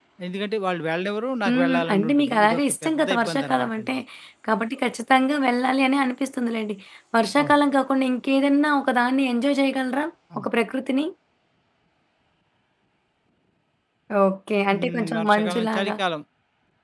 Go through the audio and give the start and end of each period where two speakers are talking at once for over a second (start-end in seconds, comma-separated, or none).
1.5-3.9, 14.7-15.9